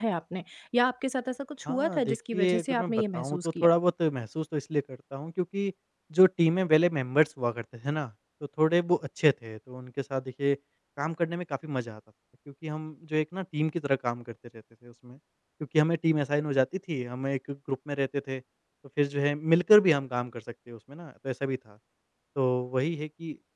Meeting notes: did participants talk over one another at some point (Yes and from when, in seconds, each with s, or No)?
Yes, from 1.7 s